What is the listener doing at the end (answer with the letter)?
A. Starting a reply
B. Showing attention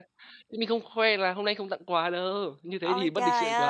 A